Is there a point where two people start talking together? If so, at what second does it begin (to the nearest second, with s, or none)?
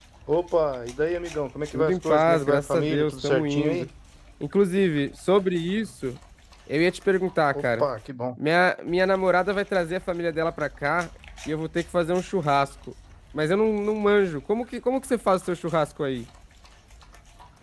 2 s